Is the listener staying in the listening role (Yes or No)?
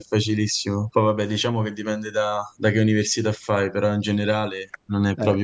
No